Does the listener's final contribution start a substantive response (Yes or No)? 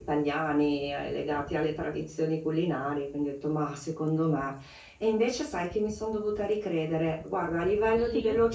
No